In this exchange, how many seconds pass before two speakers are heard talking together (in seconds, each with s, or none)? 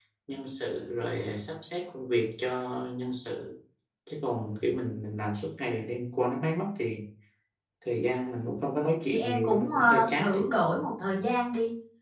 9.1 s